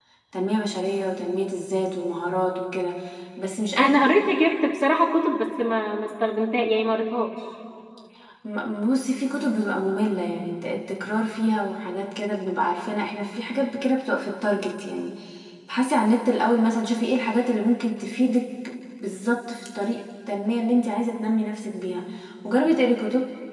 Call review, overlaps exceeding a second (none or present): none